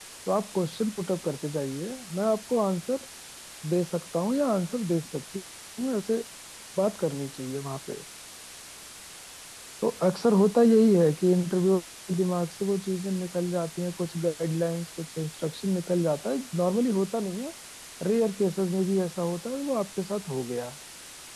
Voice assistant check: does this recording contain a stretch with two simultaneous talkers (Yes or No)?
No